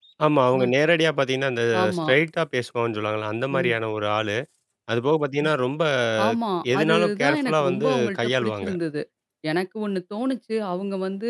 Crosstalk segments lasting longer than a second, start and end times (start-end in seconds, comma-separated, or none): 6.8-8.7